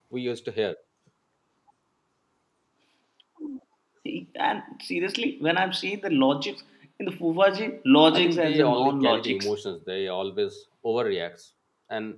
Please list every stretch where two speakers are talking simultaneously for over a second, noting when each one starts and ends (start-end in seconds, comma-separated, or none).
8.1-9.5